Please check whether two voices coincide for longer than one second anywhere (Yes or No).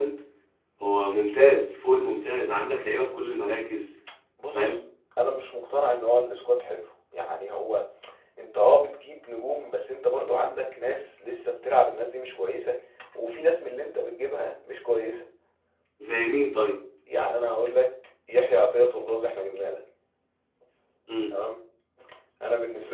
No